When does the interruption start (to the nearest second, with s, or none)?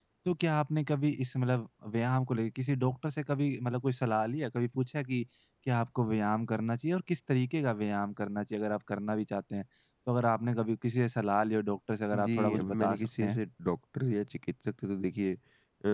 12 s